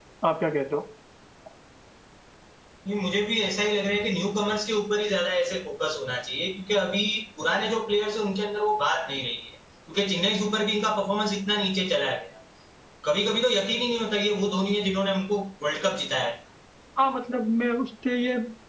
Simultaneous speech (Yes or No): No